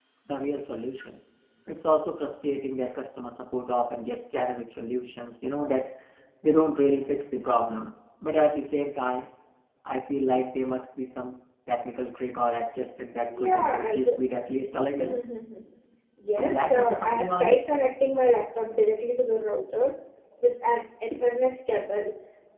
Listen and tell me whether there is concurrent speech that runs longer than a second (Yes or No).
Yes